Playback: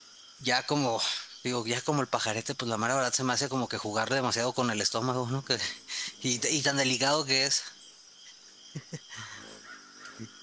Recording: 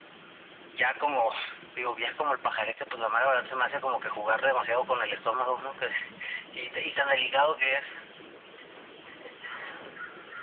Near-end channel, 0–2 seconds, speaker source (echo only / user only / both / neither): echo only